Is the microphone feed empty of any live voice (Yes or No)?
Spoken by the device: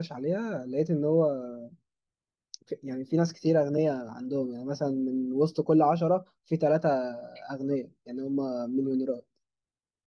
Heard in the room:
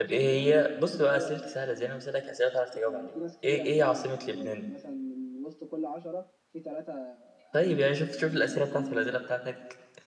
No